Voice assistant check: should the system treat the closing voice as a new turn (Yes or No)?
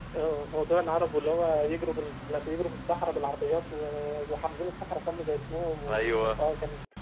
No